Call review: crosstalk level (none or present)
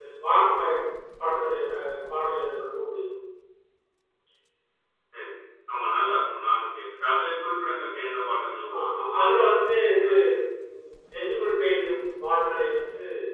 present